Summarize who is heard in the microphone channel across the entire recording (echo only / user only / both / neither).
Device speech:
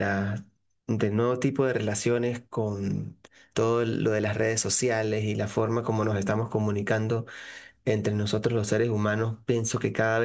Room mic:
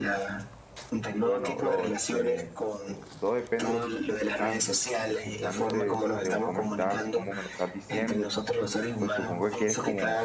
both